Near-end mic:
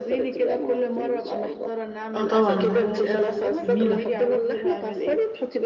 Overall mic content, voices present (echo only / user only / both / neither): both